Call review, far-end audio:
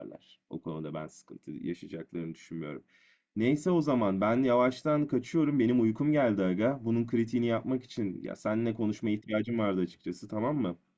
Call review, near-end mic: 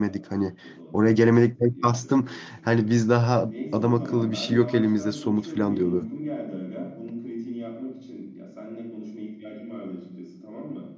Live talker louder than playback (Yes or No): Yes